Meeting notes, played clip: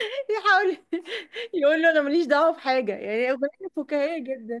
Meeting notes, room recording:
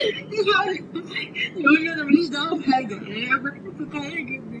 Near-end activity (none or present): none